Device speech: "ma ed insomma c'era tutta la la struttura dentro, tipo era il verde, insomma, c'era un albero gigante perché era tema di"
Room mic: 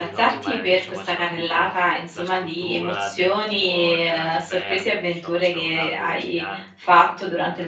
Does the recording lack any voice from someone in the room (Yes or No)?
No